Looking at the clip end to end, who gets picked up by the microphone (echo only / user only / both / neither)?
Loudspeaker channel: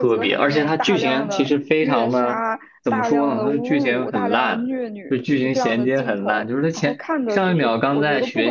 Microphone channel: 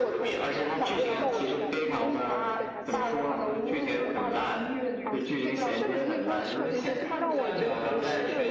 both